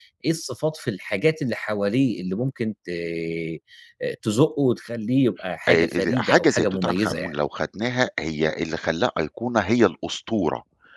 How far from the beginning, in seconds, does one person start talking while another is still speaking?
5.7 s

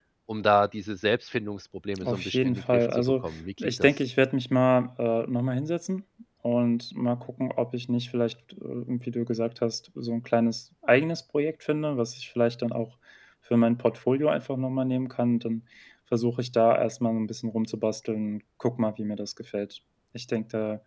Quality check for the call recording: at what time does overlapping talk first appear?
2.0 s

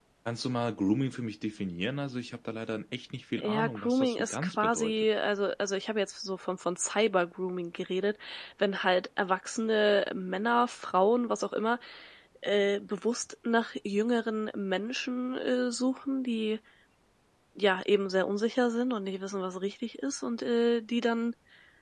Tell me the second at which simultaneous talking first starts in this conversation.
3.4 s

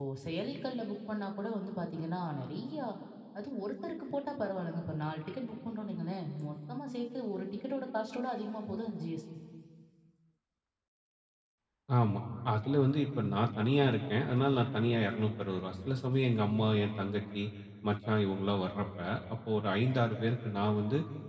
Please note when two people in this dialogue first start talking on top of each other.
none

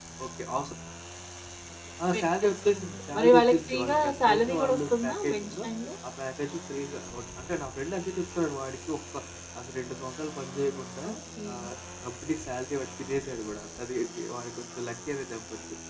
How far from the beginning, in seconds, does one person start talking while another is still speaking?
2.1 s

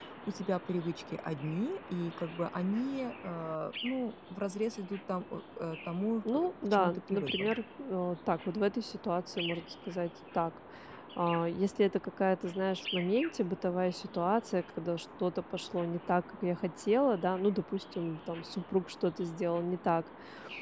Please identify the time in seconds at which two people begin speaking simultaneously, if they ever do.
6.2 s

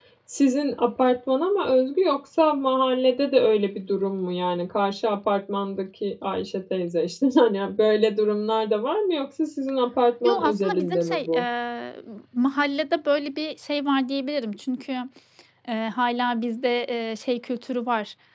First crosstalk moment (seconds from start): 10.2 s

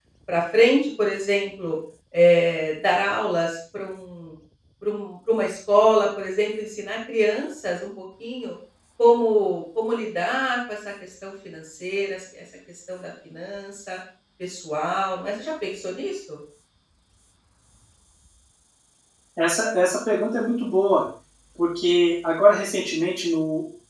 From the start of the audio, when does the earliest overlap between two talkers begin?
none

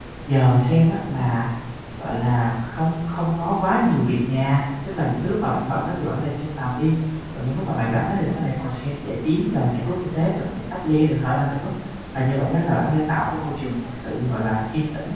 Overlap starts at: none

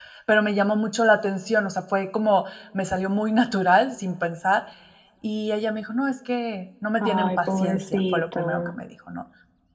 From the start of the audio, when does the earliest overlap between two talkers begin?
7.0 s

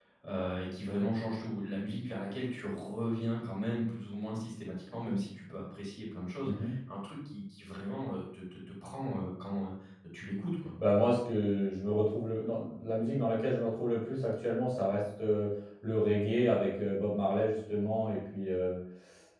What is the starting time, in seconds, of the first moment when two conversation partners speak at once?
none

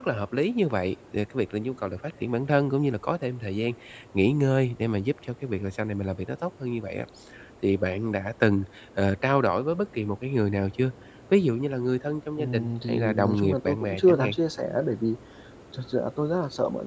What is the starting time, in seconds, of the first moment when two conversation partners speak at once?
12.4 s

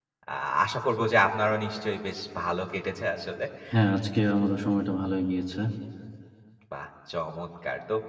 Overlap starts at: none

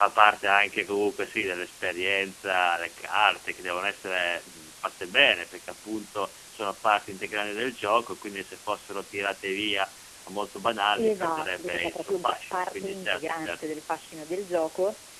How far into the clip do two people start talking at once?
11.0 s

